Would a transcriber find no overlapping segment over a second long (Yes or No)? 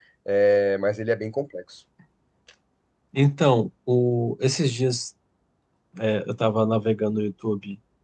Yes